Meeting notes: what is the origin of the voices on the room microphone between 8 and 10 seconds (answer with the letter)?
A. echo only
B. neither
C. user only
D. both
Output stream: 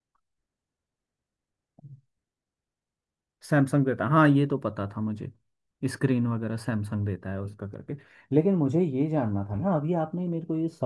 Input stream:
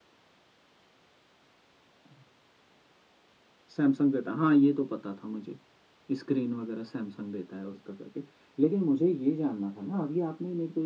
A